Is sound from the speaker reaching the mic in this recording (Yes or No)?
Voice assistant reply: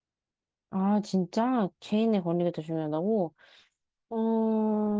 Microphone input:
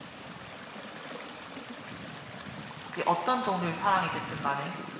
No